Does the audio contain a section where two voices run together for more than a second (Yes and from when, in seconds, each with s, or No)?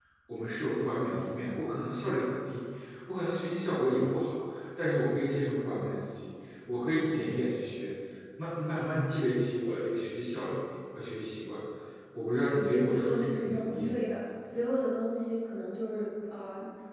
Yes, from 12.6 s